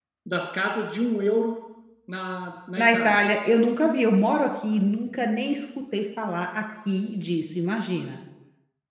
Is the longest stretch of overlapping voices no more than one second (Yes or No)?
Yes